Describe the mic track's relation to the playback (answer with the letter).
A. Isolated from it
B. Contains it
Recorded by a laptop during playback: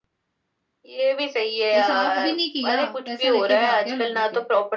B